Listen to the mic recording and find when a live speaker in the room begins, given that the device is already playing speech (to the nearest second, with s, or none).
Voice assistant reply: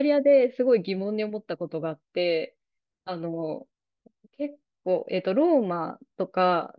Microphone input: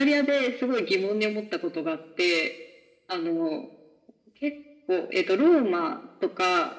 none